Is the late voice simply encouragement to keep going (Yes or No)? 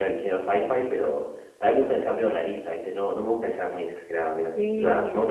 Yes